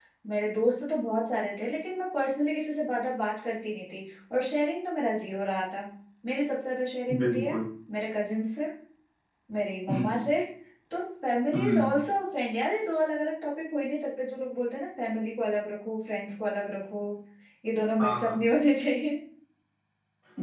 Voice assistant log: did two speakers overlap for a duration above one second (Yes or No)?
No